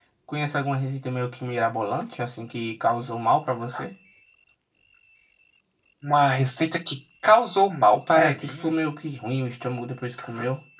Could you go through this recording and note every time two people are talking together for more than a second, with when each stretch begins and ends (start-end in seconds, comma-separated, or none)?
none